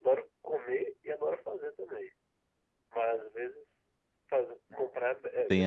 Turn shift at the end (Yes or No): Yes